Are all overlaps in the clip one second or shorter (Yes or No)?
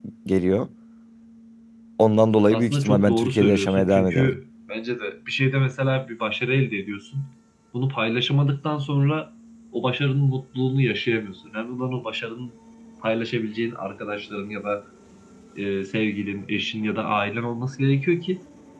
No